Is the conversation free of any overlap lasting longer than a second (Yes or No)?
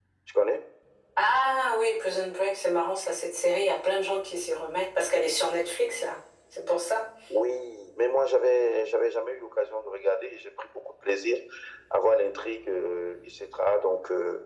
Yes